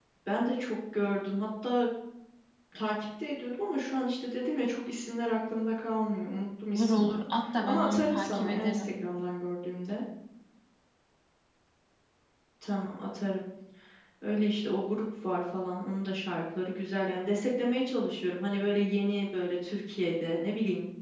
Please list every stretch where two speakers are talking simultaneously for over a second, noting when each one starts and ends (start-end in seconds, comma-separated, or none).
7.6-8.9